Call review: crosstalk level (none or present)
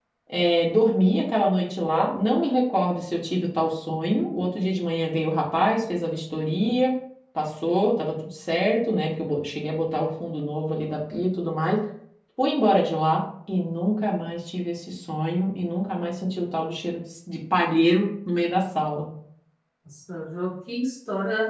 none